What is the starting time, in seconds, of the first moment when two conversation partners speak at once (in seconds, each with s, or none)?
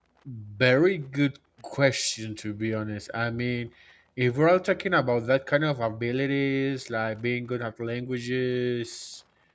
none